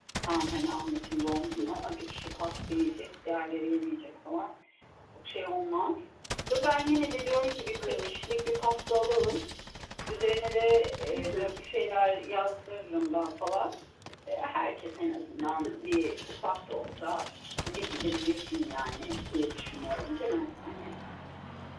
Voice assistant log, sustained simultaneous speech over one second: none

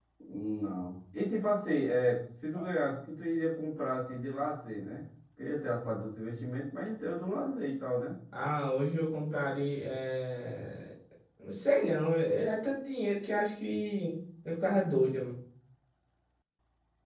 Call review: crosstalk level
none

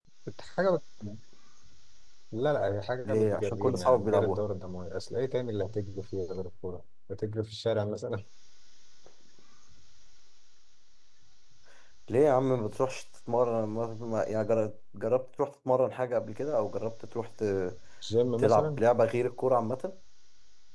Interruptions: present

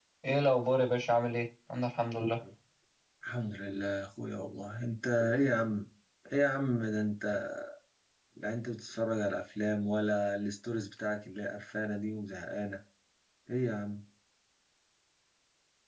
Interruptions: none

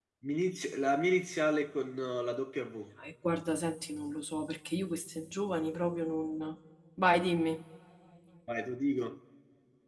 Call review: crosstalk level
none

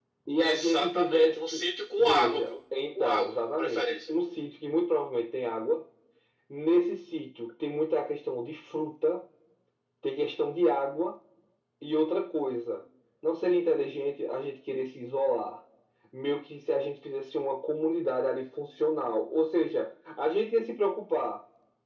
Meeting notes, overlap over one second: present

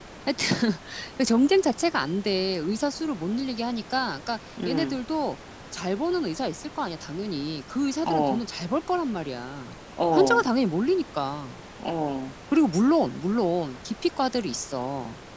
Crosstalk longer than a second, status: none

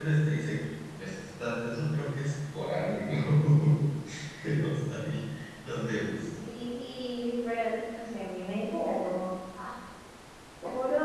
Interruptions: none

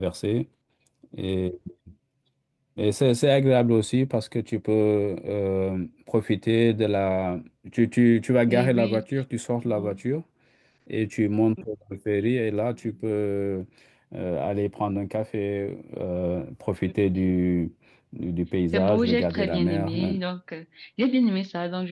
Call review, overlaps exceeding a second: present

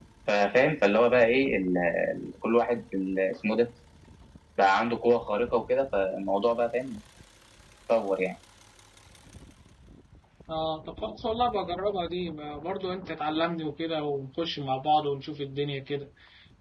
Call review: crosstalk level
none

